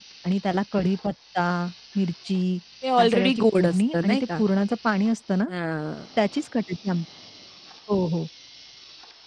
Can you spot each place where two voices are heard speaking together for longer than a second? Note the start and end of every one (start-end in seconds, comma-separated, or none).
3.0-4.4